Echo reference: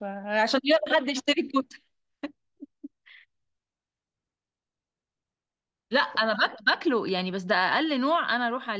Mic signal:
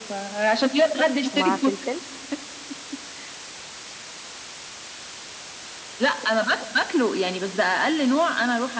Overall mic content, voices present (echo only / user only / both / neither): both